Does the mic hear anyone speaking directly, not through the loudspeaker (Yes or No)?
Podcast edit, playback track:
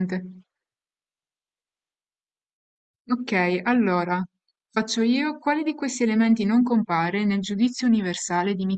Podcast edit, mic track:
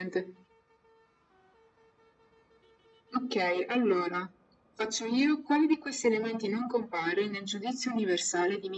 No